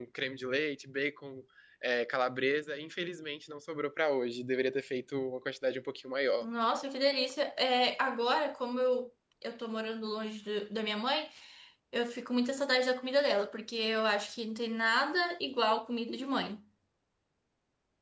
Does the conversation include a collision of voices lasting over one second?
No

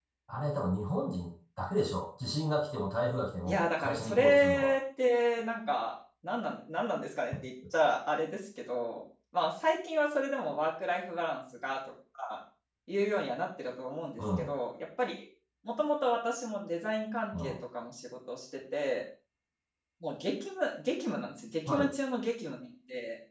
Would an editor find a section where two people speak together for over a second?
Yes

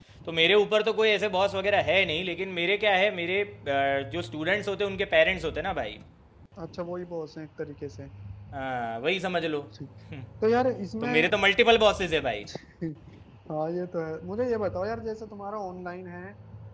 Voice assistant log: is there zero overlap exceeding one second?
Yes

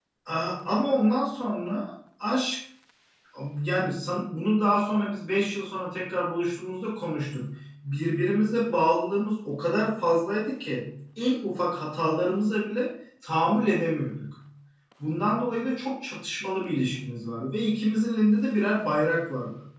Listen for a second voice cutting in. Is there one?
No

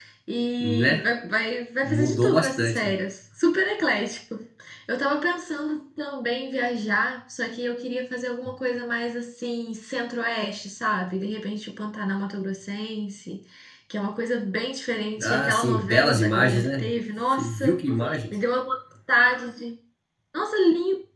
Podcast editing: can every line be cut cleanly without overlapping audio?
No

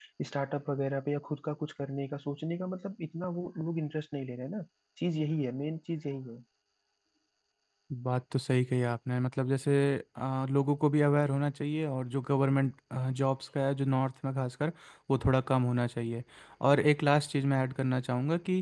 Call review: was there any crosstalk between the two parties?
No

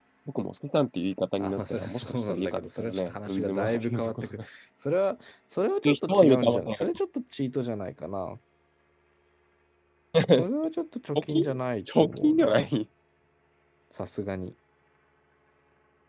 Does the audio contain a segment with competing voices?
Yes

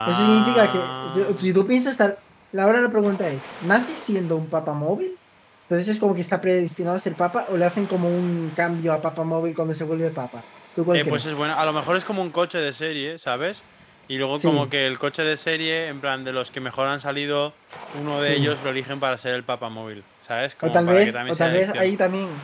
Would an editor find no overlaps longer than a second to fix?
No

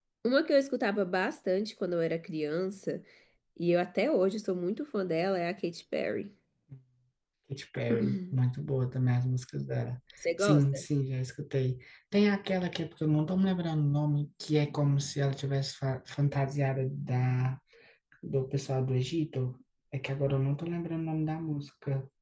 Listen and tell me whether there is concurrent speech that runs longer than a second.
No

